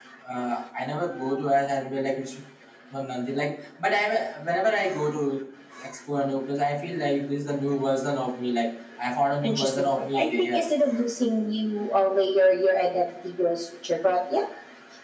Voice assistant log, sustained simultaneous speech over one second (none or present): present